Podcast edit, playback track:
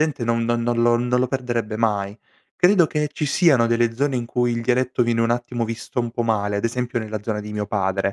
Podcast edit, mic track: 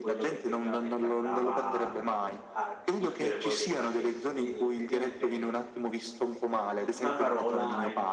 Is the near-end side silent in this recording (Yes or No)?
No